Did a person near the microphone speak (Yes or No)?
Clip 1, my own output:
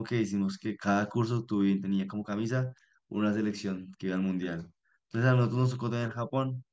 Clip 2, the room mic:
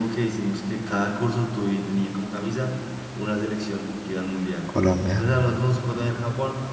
Yes